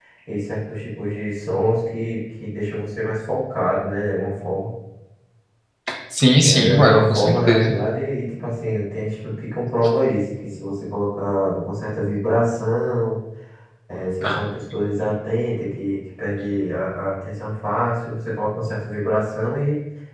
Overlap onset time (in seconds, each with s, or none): 6.4 s